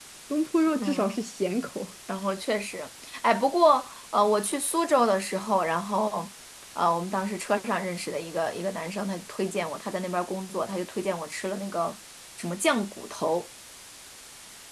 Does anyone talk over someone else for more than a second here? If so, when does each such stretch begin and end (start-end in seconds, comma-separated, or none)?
none